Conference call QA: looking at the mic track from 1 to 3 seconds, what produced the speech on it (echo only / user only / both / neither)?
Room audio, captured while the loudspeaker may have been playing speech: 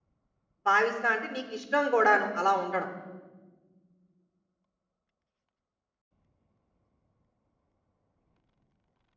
user only